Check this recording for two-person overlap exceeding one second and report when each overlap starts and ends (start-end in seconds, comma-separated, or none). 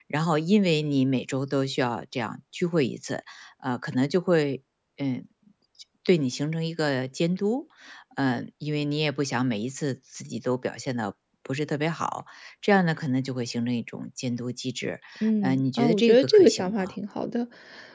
15.4-16.9